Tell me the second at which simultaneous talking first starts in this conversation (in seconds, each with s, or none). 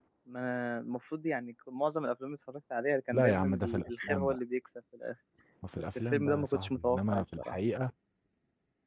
3.1 s